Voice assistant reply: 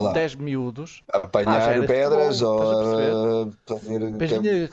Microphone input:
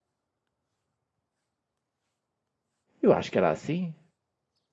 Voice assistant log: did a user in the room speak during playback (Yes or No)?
Yes